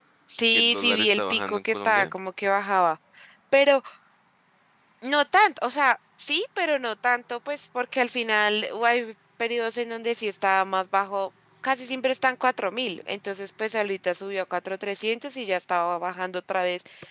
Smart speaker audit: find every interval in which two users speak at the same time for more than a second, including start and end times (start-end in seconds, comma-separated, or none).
0.5-2.1